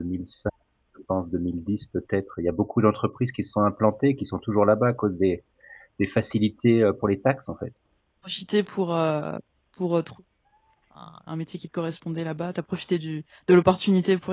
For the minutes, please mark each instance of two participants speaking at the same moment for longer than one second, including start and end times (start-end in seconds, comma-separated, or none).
none